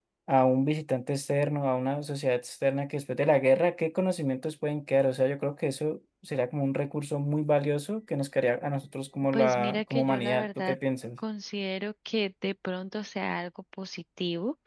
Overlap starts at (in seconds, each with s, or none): 9.3 s